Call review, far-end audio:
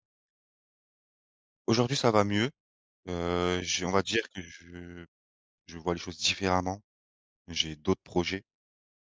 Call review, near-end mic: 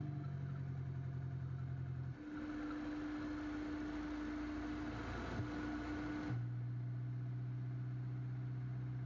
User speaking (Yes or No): No